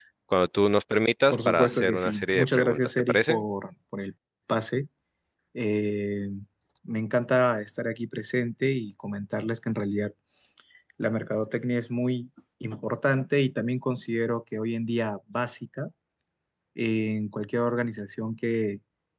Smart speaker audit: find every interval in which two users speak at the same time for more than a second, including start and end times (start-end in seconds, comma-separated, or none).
1.3-3.5